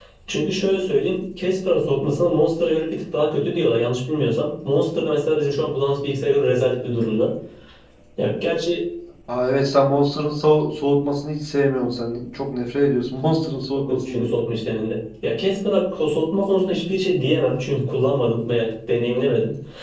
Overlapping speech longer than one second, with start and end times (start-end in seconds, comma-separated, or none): none